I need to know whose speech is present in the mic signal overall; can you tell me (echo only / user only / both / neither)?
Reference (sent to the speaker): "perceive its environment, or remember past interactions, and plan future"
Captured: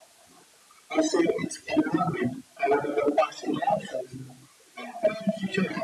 echo only